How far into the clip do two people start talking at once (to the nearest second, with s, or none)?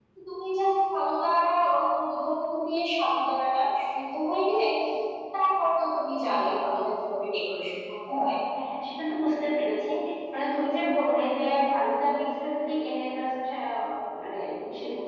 none